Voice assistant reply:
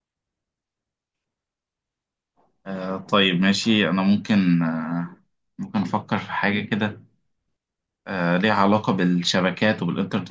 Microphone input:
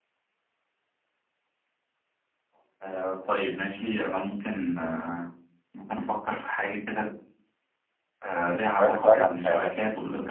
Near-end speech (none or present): present